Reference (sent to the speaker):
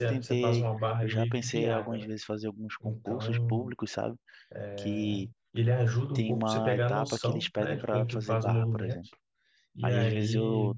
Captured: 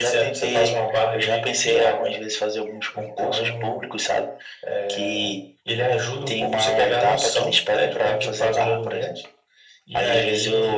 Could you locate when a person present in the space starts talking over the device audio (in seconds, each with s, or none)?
none